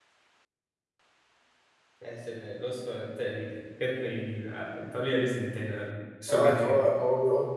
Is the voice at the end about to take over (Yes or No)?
Yes